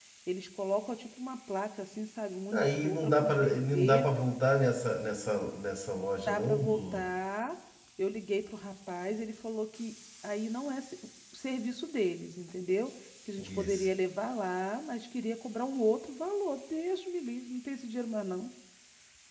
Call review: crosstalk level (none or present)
present